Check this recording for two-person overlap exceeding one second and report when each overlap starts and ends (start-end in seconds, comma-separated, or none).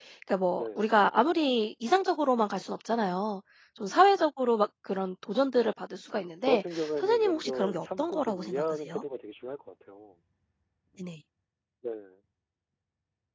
6.4-9.0